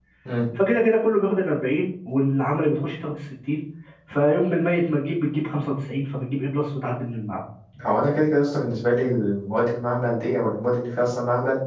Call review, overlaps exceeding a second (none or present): none